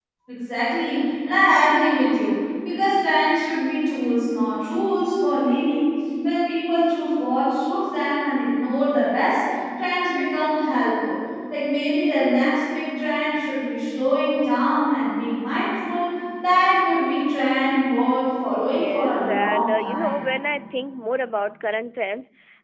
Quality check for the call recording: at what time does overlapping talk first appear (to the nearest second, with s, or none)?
19 s